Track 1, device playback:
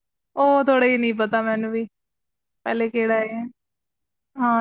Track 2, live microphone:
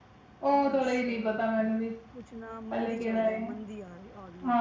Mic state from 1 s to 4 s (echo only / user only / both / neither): both